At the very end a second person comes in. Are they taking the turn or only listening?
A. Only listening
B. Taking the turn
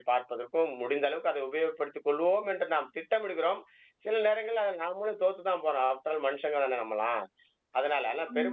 A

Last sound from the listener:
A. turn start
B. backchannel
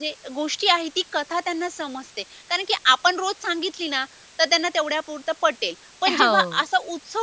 B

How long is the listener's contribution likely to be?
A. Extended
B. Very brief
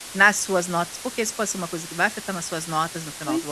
A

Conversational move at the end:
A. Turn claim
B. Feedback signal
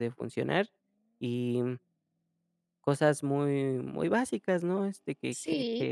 A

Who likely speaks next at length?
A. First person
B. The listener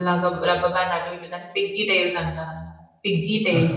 A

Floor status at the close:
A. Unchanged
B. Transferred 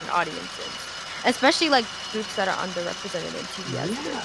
B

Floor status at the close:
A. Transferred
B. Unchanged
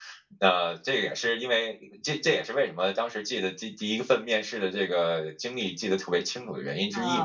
A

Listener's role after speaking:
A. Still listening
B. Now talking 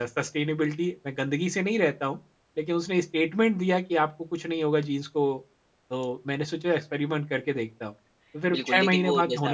B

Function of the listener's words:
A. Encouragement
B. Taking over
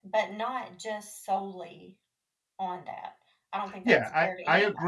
B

